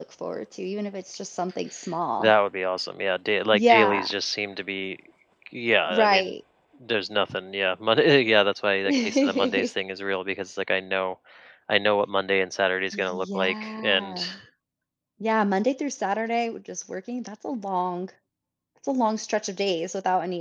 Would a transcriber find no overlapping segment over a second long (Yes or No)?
No